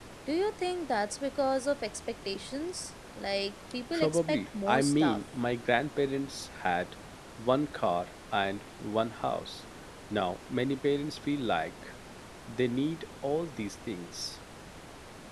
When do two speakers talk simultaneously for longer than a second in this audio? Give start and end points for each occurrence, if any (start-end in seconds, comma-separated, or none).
3.9-5.2